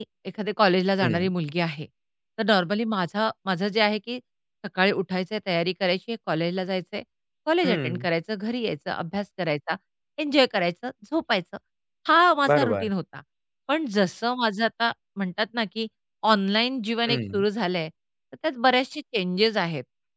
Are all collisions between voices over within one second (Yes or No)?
Yes